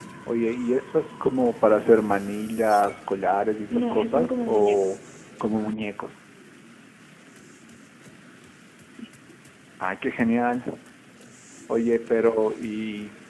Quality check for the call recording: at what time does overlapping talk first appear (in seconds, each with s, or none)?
3.7 s